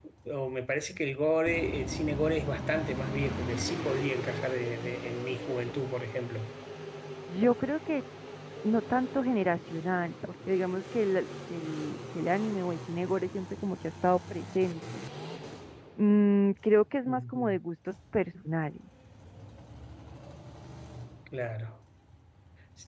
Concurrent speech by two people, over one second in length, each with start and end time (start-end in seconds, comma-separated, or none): none